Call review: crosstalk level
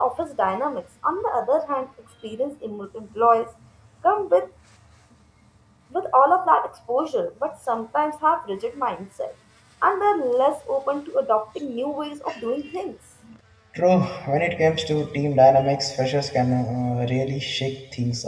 none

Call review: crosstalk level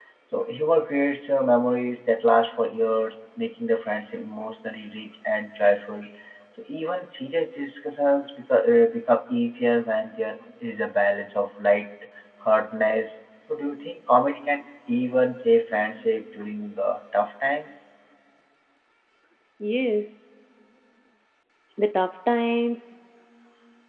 none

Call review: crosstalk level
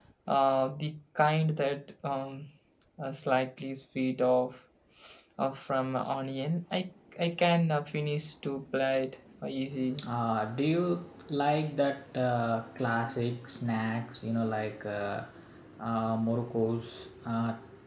none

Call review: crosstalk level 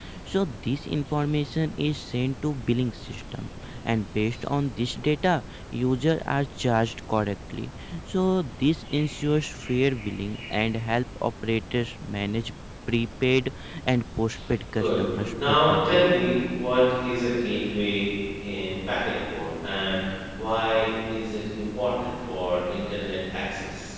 present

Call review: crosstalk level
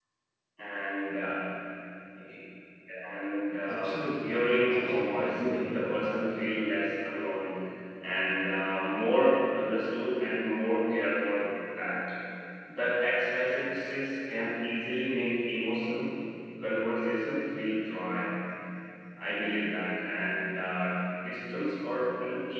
present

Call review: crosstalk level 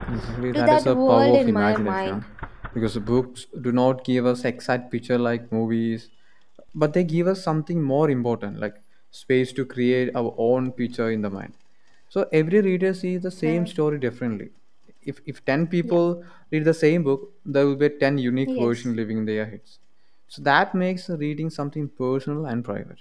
present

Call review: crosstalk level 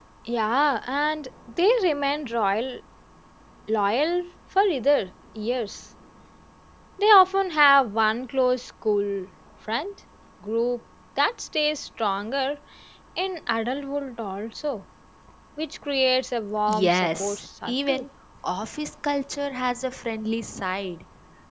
present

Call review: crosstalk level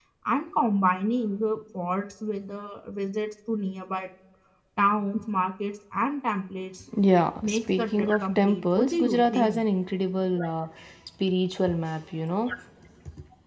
present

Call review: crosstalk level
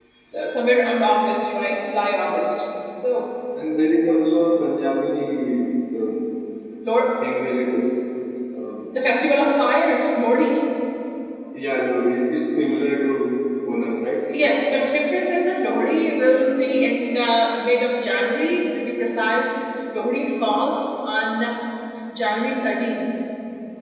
none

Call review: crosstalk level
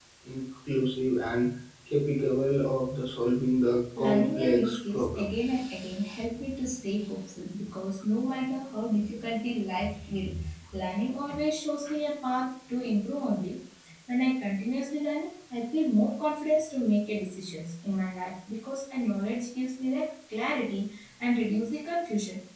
present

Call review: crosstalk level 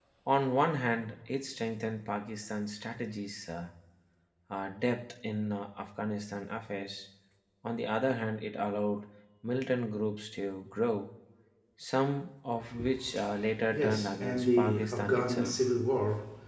present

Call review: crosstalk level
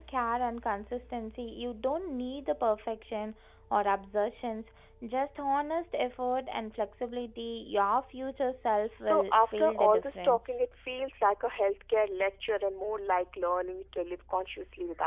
present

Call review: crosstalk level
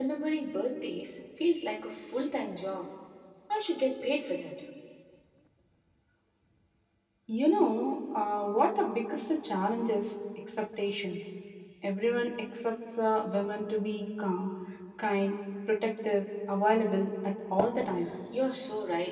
none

